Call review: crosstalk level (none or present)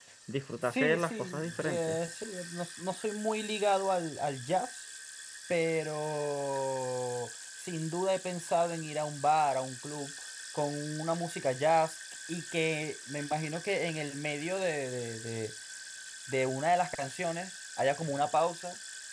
present